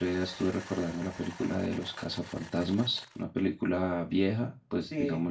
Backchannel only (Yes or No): No